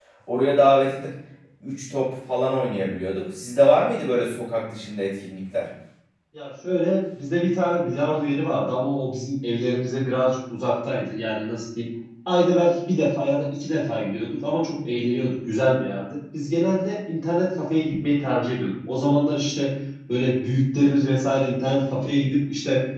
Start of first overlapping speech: none

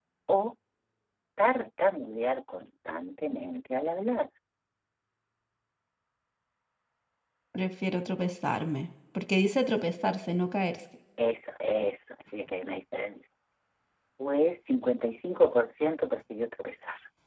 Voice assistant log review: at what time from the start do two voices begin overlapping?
none

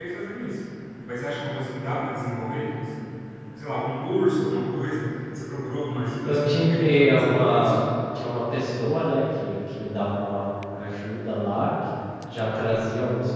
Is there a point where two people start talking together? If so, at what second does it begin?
6 s

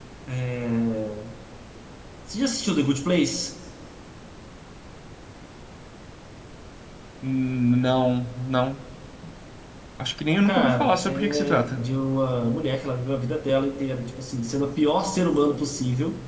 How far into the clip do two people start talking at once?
10 s

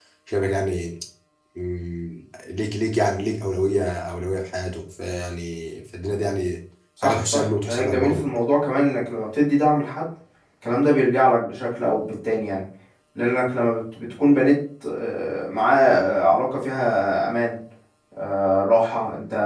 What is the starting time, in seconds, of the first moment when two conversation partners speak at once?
7 s

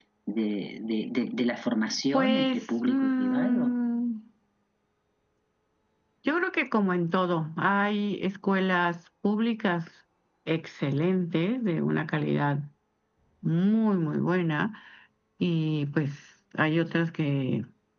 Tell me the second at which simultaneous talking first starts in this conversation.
2 s

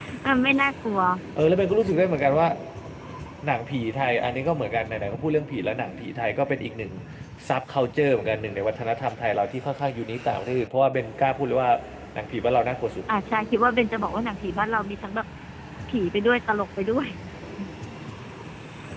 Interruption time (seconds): none

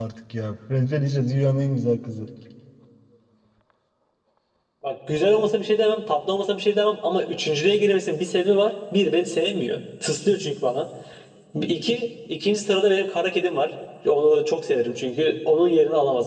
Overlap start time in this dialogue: none

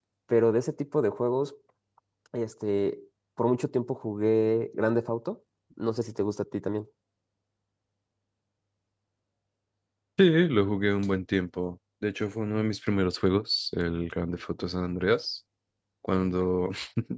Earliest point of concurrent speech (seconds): none

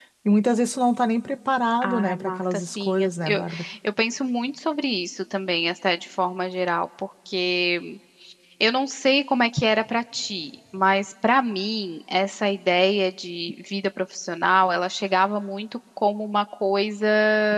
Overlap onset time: 2 s

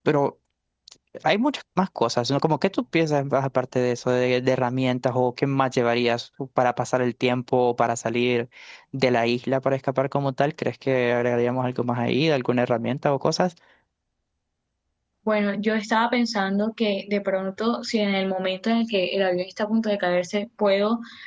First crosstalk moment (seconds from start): none

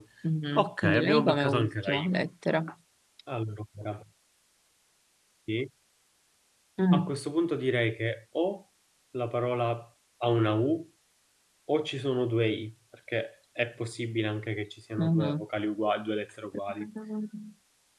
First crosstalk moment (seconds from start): 1 s

